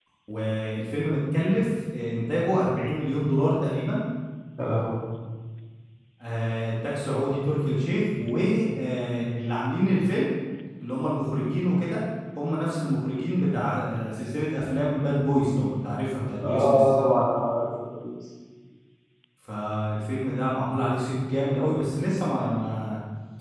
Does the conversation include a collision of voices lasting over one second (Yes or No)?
No